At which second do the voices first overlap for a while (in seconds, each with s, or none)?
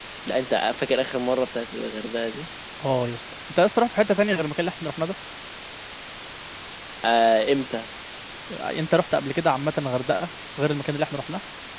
none